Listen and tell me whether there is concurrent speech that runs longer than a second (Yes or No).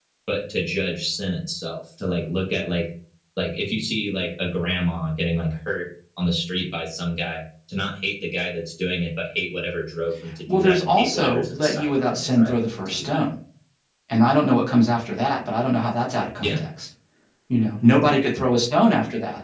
Yes